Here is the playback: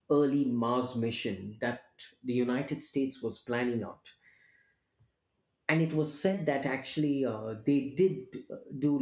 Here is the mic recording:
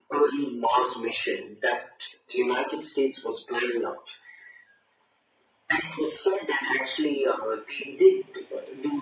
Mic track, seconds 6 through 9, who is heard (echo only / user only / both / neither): echo only